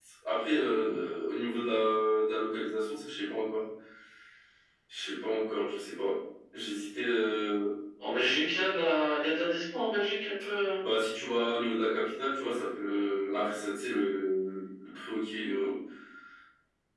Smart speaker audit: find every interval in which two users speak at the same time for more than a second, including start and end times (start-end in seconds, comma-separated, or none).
none